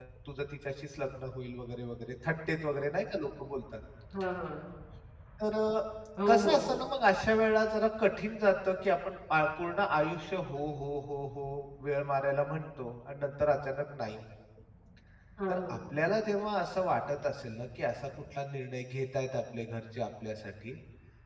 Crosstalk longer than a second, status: none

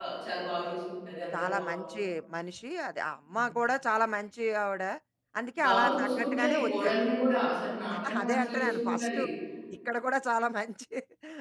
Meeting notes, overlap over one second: present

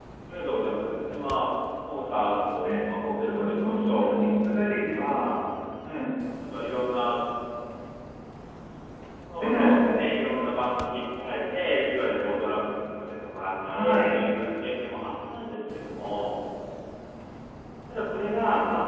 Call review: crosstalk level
present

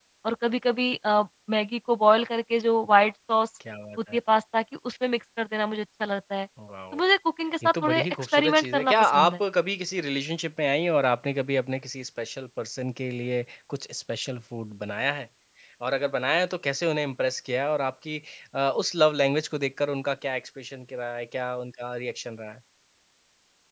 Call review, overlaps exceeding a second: present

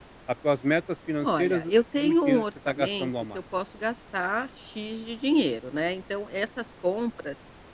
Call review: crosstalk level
present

